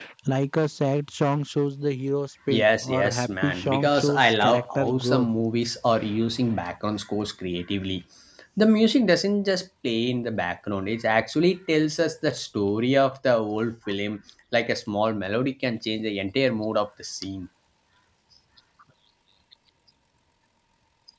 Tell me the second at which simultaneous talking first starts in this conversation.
2.5 s

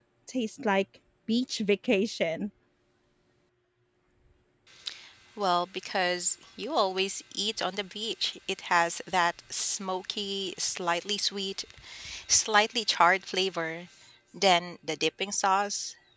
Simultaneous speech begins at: none

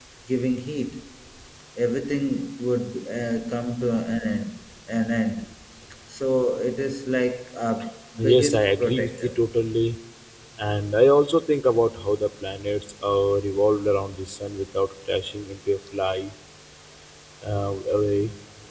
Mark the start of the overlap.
8.2 s

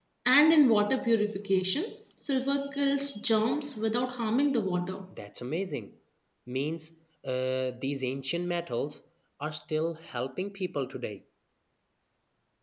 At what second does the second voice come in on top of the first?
none

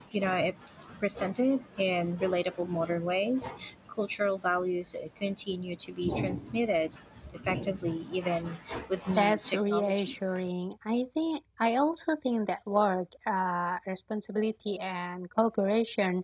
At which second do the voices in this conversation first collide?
9.2 s

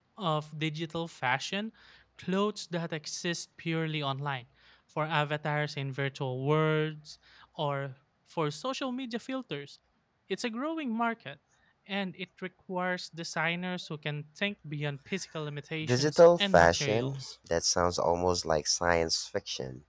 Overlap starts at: 15.8 s

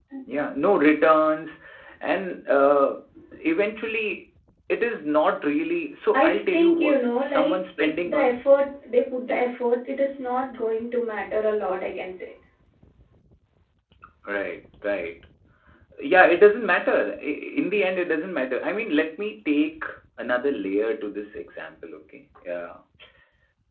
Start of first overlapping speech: 6.1 s

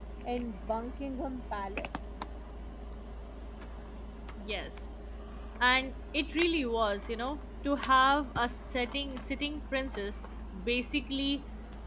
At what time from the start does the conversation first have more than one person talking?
none

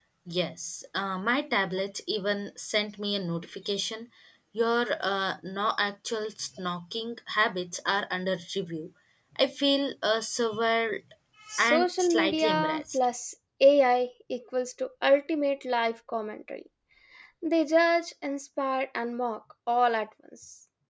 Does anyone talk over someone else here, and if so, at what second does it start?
11.6 s

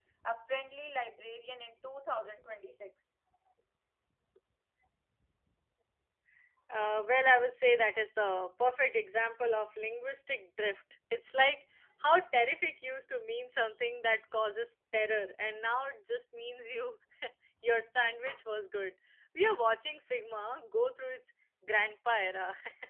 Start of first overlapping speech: none

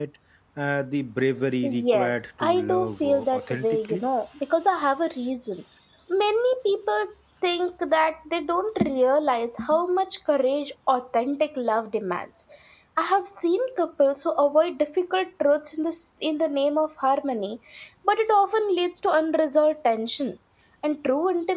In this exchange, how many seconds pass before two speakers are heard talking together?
1.6 s

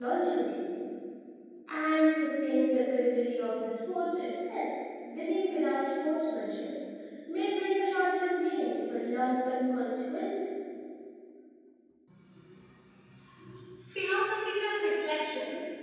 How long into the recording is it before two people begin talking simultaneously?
none

